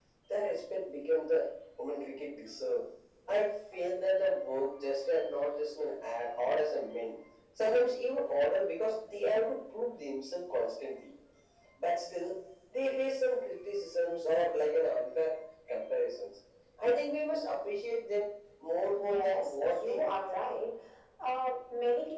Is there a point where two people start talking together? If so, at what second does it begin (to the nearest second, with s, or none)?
19 s